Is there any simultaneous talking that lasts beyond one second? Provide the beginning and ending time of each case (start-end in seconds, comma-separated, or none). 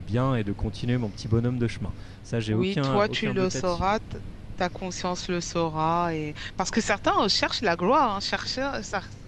2.5-3.9